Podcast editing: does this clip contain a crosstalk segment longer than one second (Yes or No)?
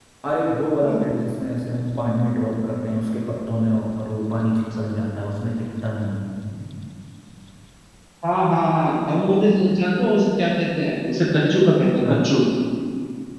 No